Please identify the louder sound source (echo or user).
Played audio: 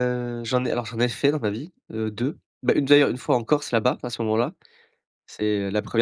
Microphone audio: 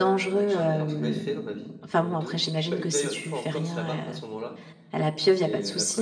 user